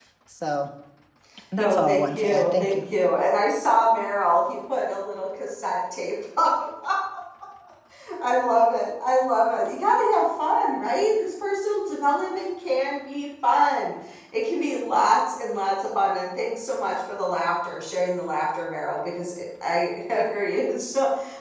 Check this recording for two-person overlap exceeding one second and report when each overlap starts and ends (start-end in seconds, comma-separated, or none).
1.6-2.8